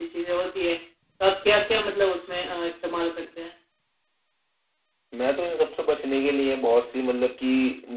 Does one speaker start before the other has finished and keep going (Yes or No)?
No